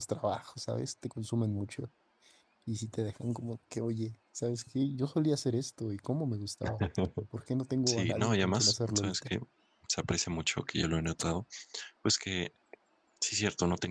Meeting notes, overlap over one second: present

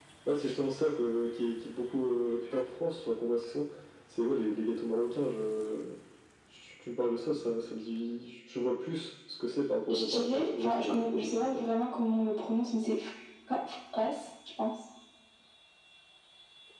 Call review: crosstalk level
present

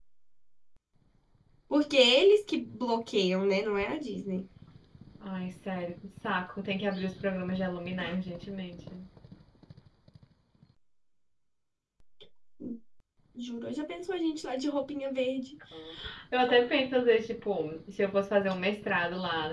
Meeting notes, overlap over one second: none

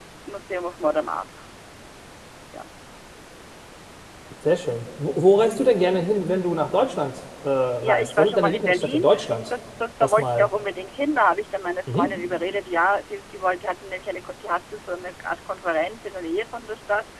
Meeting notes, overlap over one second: present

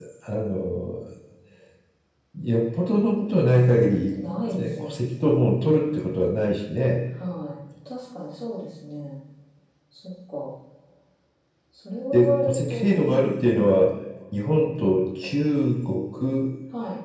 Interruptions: present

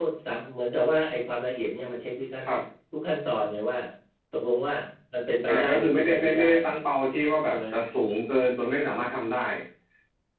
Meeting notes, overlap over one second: present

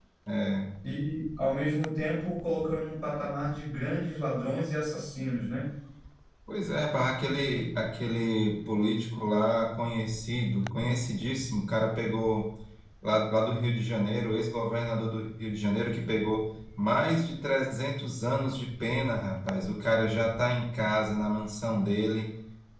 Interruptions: none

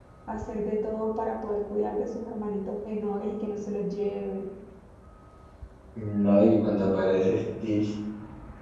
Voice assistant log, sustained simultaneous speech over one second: none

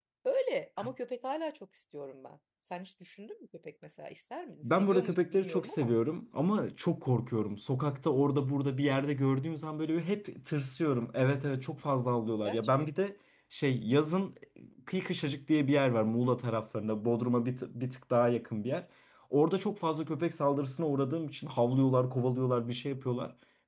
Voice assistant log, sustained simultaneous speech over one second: present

